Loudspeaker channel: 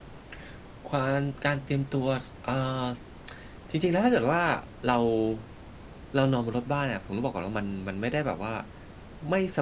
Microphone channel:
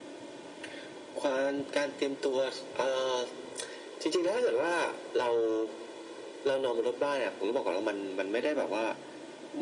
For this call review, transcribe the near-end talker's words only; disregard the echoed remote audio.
none

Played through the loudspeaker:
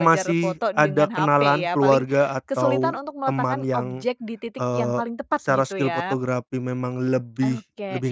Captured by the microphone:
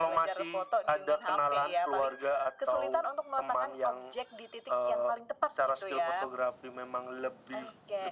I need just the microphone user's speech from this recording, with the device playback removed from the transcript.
none

